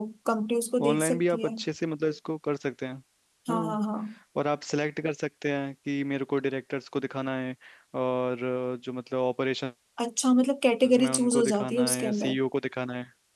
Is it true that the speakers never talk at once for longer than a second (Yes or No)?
No